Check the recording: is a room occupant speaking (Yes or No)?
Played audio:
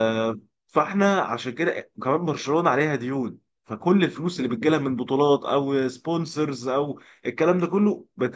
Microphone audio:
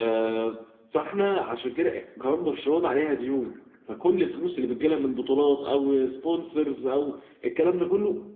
No